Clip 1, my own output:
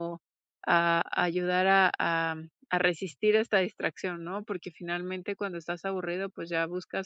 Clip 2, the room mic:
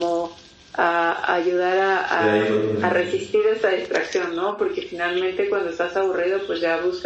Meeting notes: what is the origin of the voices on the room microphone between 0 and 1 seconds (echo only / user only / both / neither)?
echo only